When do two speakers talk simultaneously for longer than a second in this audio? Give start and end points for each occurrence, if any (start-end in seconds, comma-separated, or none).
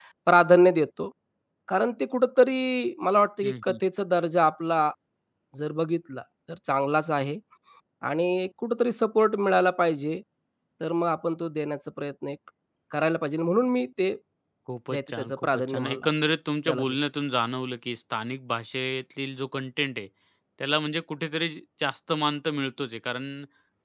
14.9-16.1